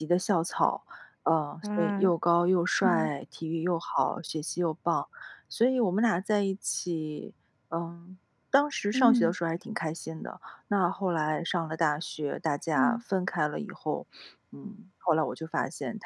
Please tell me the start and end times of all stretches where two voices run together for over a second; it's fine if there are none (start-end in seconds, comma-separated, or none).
none